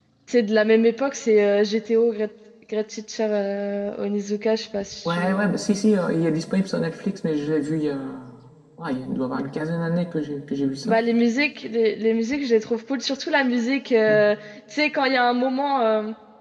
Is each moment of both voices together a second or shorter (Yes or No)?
Yes